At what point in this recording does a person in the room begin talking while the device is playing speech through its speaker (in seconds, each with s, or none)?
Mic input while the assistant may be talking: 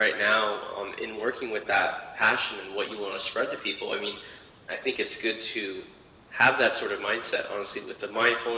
none